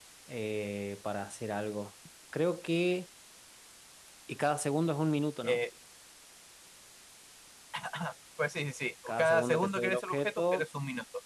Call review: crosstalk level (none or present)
present